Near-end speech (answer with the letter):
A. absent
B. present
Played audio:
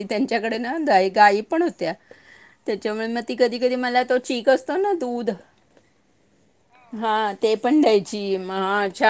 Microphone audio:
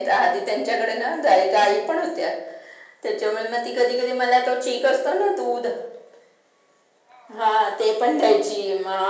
A